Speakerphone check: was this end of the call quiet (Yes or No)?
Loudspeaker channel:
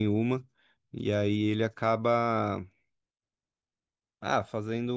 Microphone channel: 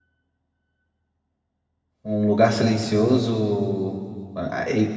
No